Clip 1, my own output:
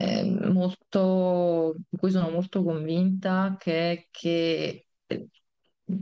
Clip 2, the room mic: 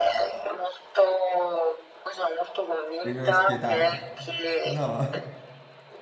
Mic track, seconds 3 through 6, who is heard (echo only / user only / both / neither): both